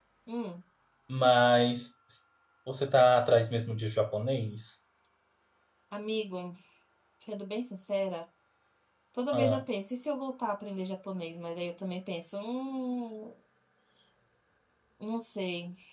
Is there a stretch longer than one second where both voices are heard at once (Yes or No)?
No